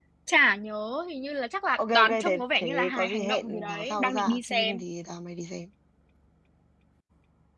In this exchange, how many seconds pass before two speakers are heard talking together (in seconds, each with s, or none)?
1.8 s